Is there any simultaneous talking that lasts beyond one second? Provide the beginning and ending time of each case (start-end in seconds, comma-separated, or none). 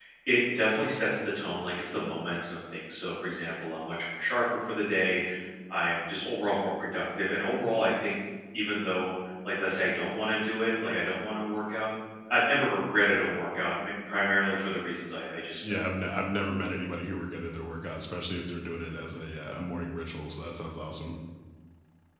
none